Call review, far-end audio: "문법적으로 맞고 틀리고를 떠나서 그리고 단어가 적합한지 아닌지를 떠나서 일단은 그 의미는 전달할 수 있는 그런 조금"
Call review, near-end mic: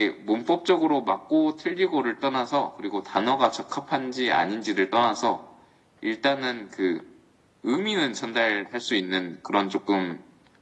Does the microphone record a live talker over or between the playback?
No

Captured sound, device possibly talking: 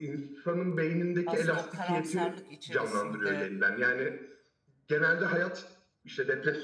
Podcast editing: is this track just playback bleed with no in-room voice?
No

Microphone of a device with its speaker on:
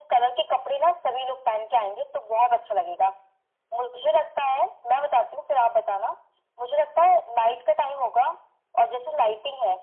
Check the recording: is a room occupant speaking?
No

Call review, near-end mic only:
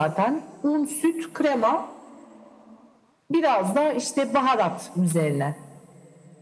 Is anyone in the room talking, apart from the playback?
No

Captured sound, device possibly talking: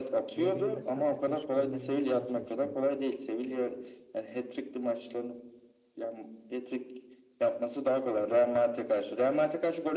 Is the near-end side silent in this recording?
No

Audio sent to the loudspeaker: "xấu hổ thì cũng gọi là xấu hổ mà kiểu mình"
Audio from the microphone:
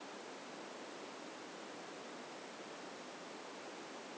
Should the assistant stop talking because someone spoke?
No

